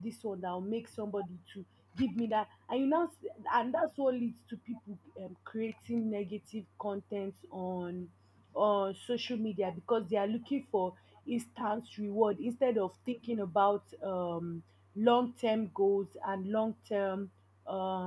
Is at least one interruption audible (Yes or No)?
No